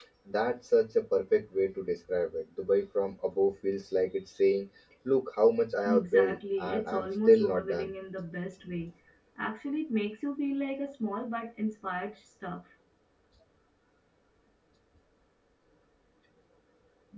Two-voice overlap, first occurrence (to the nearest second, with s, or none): 6 s